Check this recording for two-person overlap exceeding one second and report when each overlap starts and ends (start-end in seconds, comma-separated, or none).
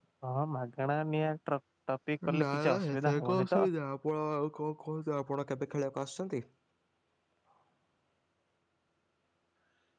2.4-3.6